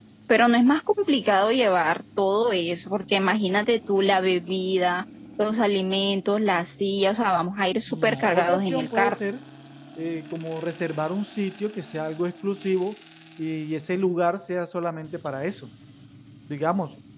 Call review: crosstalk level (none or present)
present